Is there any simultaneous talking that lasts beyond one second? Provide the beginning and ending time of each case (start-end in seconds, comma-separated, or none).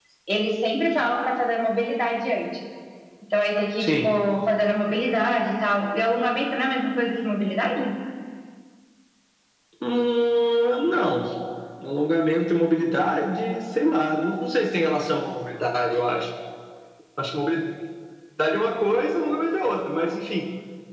none